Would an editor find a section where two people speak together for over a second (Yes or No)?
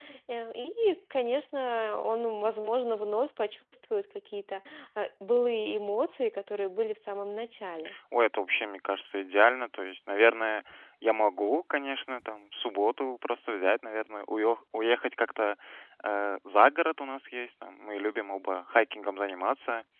No